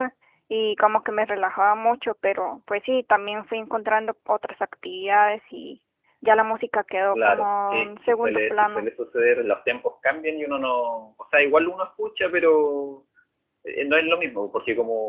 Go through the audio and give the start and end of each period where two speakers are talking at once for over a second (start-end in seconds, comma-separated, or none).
7.1-8.8